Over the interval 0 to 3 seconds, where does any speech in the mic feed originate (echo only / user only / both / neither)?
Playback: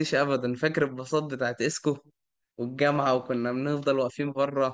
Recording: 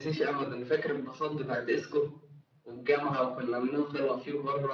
echo only